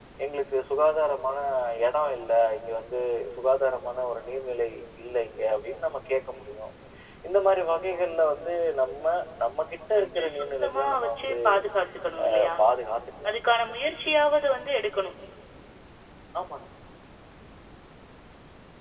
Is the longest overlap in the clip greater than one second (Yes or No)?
Yes